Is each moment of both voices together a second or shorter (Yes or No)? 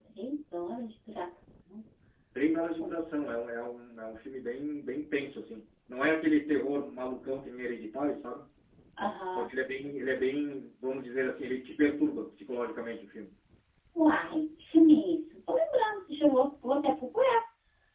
Yes